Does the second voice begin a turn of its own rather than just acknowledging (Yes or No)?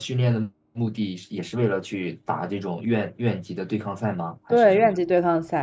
Yes